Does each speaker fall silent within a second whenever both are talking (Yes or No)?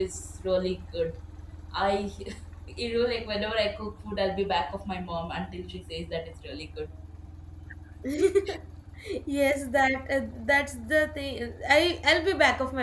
Yes